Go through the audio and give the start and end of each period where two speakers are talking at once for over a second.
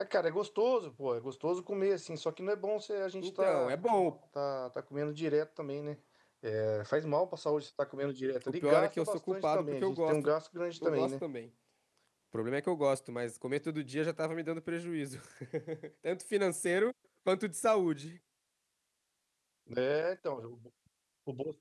8.5-10.3

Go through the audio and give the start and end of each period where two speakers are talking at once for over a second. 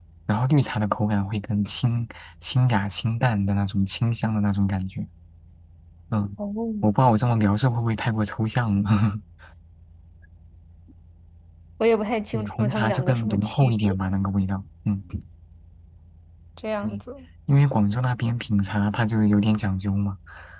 12.3-14.0

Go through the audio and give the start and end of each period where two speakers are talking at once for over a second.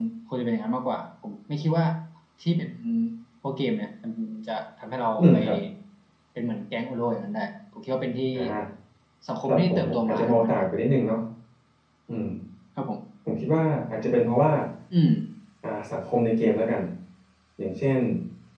9.4-10.7

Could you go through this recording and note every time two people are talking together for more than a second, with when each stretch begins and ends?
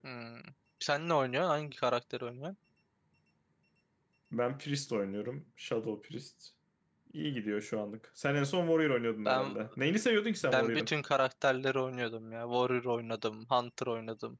none

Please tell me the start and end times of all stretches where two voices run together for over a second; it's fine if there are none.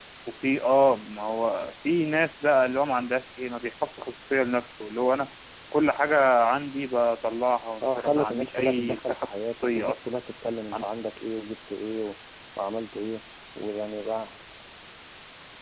7.8-10.0

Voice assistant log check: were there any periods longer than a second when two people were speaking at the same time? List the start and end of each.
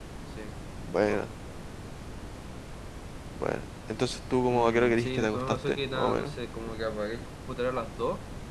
4.5-6.3

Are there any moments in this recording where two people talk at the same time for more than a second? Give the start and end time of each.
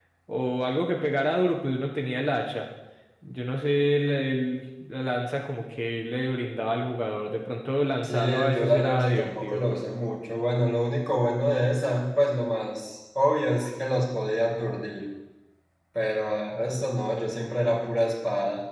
8.0-9.8

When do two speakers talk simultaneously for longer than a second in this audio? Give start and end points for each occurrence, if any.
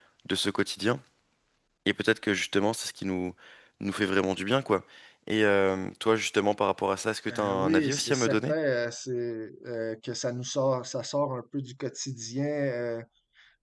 7.3-8.5

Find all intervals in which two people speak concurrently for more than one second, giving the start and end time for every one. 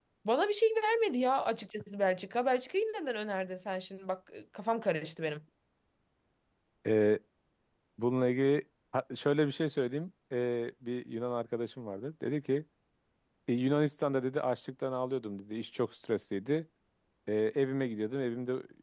none

